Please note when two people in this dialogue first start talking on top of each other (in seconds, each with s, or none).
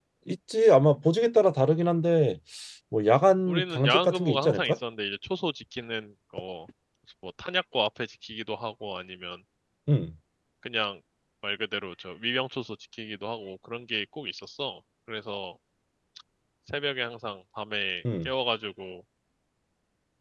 3.5 s